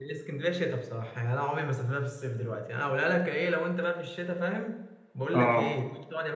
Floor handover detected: No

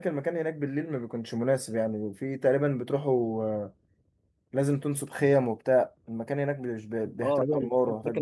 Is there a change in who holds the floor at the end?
Yes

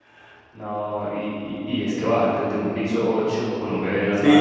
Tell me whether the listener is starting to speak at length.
Yes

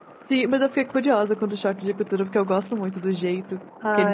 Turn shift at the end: Yes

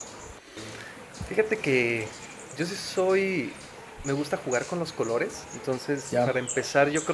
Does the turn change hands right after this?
No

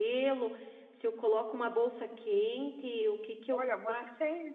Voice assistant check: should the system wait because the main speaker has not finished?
No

